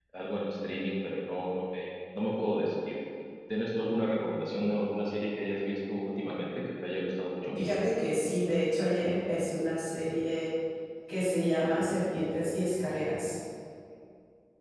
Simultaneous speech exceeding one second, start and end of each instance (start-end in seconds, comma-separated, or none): none